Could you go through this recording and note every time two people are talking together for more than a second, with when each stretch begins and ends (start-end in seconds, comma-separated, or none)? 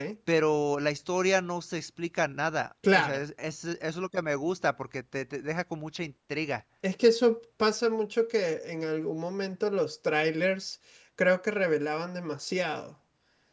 none